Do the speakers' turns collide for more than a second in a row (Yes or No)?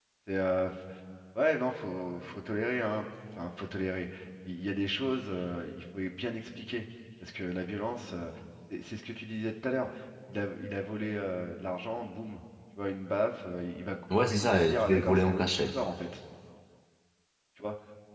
Yes